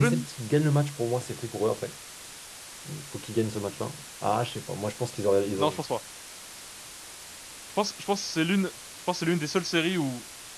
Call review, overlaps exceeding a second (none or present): none